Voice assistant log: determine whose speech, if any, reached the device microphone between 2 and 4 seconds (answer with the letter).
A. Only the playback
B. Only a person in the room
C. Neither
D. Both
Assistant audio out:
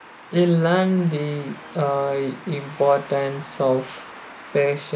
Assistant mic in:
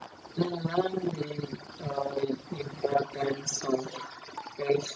A